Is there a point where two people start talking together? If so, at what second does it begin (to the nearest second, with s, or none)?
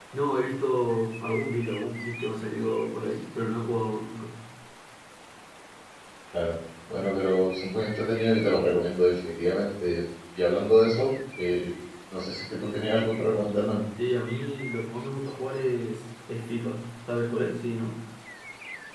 none